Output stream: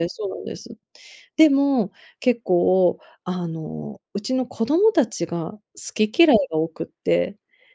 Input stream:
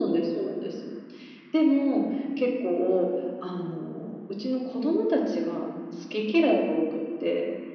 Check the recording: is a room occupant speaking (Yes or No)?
No